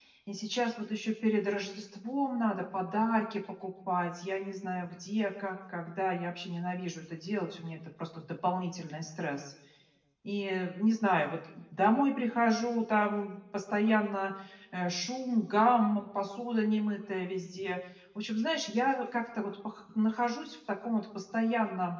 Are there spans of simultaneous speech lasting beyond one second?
No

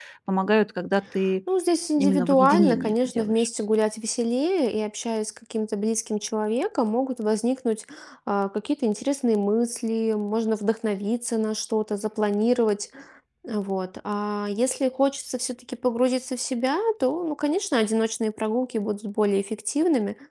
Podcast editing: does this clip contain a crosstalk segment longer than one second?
Yes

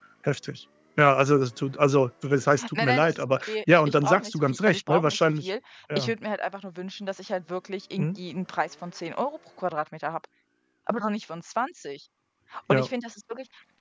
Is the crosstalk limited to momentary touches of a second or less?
No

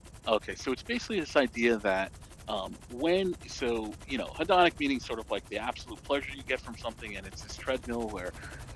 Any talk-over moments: No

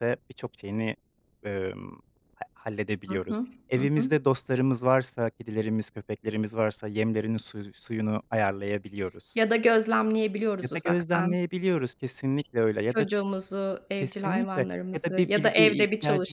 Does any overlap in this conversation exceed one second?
Yes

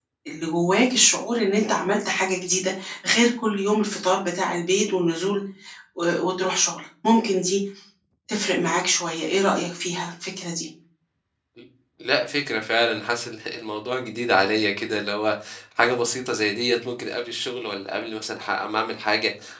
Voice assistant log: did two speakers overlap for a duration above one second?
No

